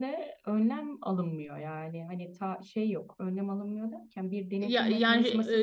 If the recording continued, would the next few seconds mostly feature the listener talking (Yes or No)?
No